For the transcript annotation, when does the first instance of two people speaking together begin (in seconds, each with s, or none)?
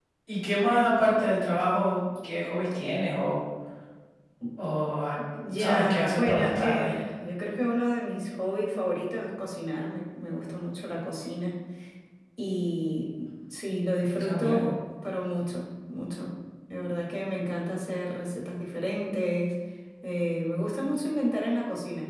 5.6 s